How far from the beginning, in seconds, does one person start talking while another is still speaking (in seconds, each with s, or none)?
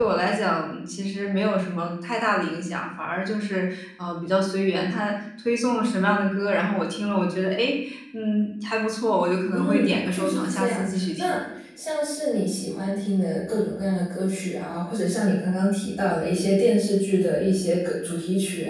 9.5 s